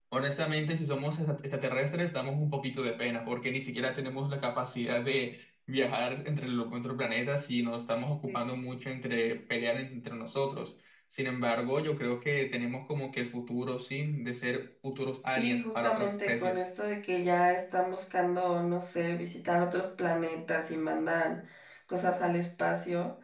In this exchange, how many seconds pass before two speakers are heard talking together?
15.4 s

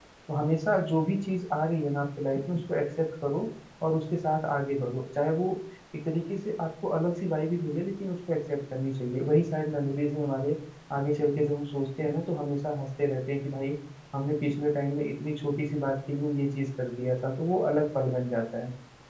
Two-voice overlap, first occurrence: none

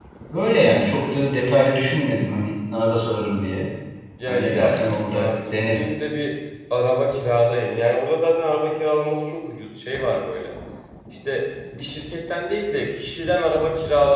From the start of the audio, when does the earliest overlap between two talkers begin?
4.3 s

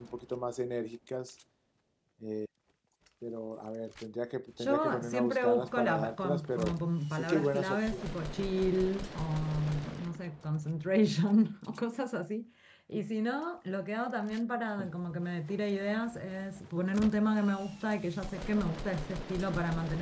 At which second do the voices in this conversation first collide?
4.6 s

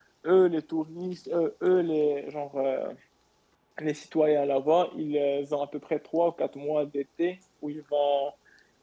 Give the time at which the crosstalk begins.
none

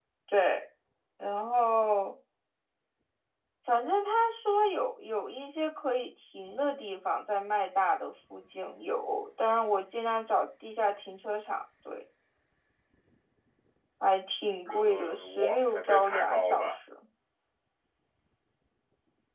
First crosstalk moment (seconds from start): 14.6 s

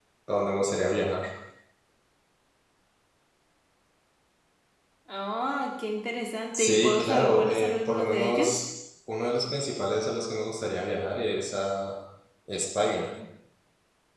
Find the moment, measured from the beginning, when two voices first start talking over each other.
6.5 s

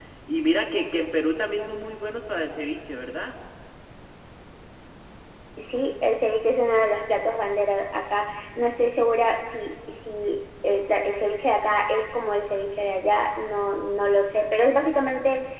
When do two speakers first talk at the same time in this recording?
none

